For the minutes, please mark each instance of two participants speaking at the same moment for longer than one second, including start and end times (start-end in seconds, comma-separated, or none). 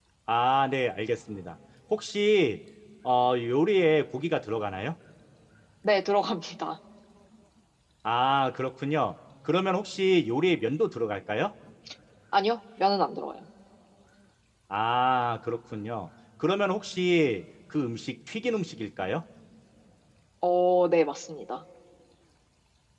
none